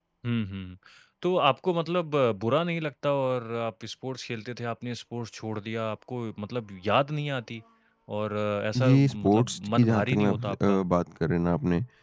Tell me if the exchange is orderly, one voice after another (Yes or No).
No